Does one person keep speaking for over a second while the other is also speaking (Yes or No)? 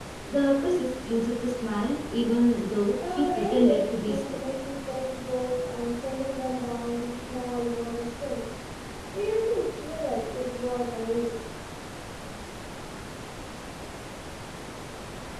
Yes